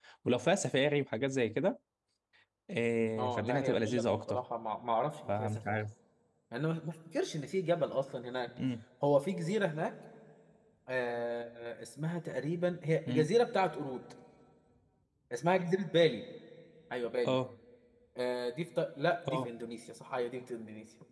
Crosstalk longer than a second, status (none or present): present